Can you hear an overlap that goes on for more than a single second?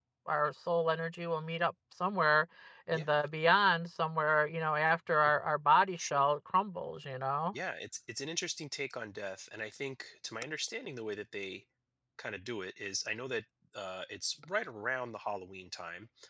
No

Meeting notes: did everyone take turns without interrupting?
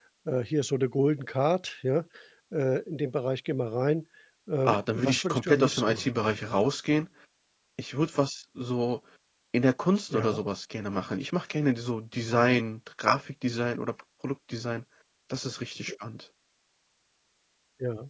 No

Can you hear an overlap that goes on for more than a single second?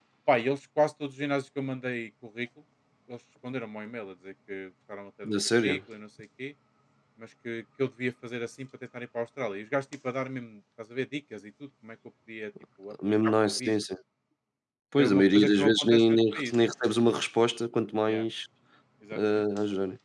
Yes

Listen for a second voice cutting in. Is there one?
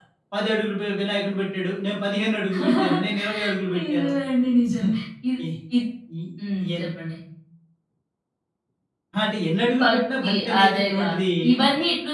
Yes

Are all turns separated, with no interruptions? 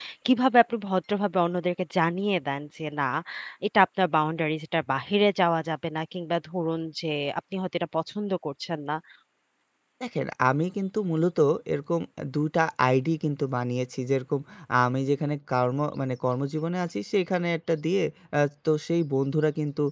Yes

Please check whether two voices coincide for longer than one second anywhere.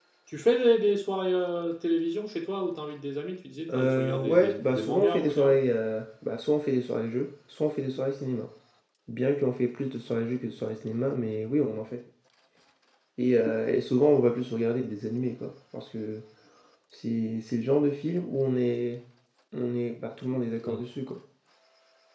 Yes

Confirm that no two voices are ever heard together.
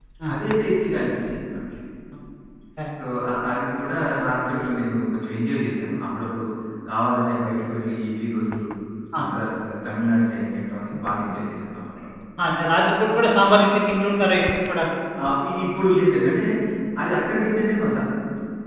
Yes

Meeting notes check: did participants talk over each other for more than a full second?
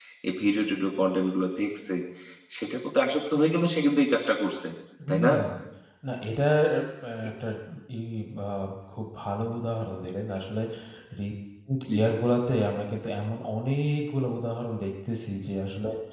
No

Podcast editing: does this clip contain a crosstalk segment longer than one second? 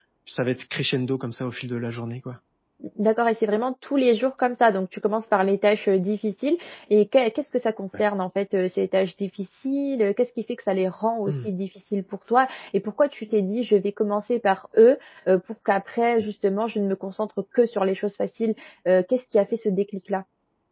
No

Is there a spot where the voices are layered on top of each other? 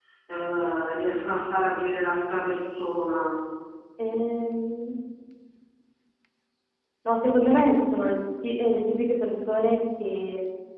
No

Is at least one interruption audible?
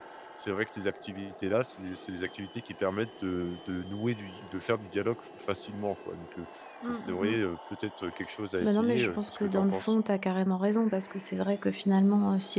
Yes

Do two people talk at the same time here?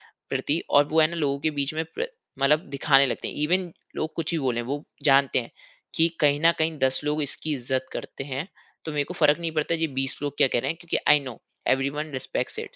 No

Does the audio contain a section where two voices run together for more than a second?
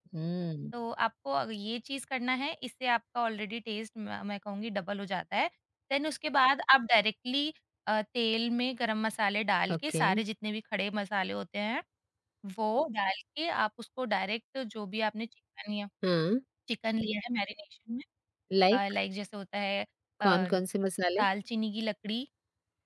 No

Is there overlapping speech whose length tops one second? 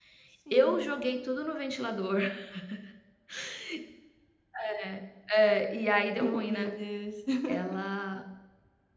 No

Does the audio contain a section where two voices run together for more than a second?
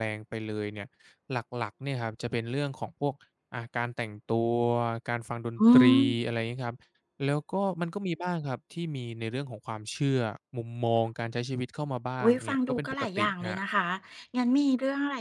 Yes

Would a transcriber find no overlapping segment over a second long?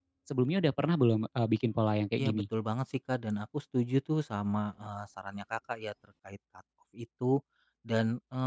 Yes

